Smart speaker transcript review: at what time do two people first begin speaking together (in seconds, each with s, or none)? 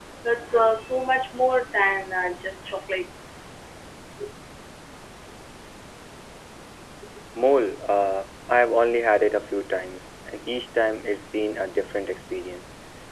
none